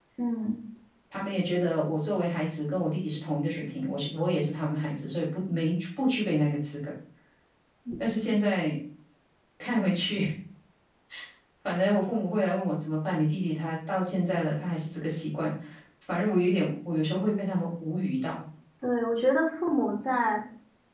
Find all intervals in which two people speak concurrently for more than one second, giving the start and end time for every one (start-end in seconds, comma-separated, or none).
none